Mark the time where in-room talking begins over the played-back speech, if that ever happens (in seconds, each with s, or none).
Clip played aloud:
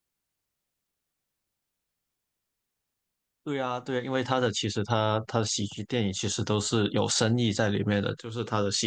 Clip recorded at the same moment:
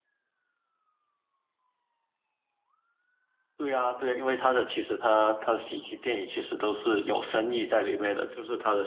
none